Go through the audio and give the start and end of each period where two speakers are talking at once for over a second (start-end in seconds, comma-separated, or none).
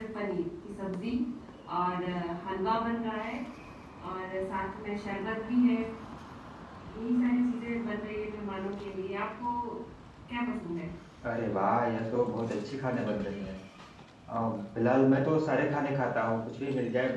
none